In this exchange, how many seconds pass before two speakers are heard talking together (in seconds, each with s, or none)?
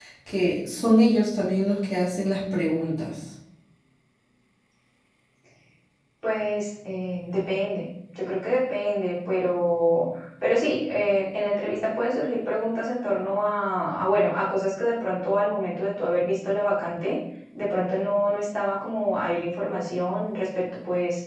none